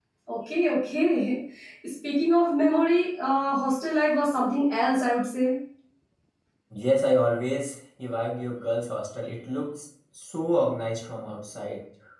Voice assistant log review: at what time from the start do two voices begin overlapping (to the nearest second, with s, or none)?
none